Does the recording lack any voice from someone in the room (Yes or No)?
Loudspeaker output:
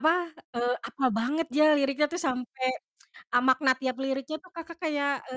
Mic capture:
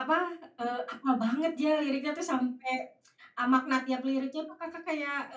Yes